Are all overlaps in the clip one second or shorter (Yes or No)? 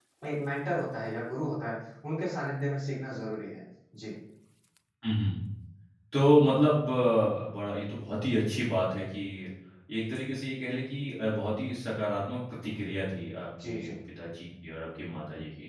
Yes